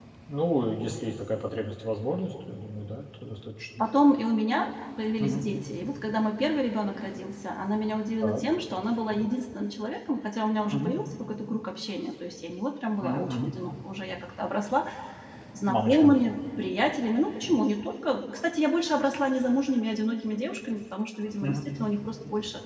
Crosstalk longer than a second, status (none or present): none